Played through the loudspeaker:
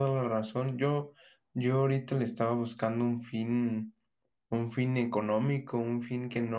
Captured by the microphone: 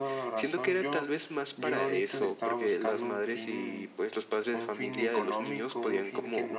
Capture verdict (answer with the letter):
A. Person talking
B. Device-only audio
A